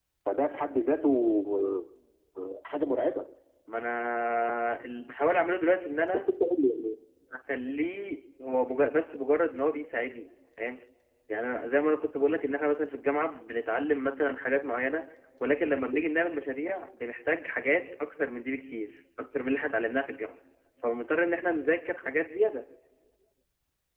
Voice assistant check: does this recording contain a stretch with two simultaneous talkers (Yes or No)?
No